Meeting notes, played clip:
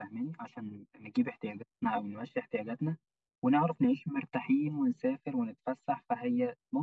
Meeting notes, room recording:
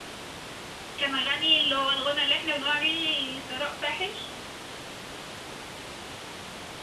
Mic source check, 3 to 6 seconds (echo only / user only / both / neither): user only